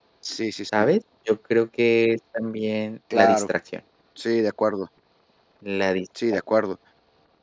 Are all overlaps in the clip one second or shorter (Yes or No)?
Yes